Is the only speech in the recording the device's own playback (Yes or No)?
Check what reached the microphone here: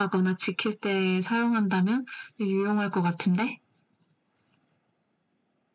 Yes